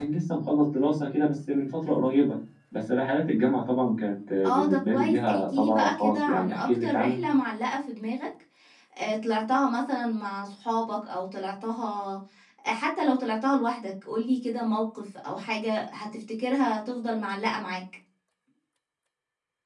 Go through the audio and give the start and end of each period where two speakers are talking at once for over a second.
4.4-7.2

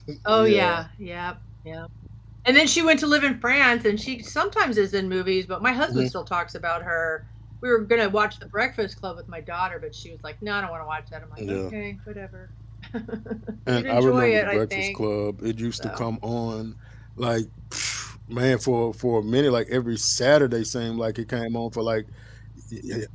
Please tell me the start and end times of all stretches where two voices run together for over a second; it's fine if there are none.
13.7-15.0

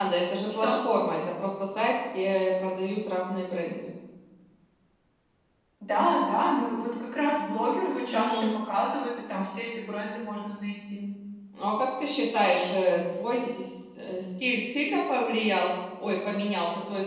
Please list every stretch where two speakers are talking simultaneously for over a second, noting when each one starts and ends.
none

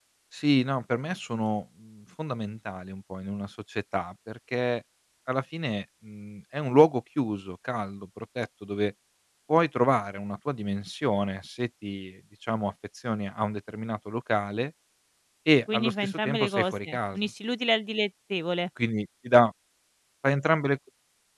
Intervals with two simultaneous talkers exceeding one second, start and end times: 15.7-17.2

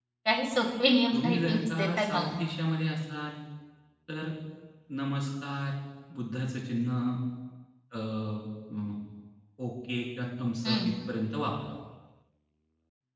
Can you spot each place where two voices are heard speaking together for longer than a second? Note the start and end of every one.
1.1-2.4

